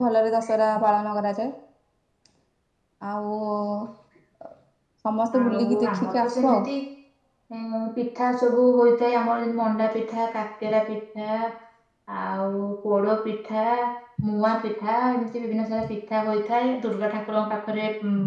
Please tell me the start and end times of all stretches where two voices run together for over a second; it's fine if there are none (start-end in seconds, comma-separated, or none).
5.4-6.6